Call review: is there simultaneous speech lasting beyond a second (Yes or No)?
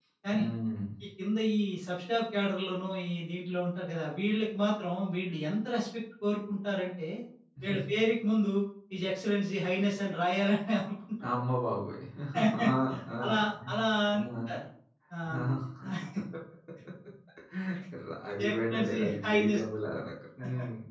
Yes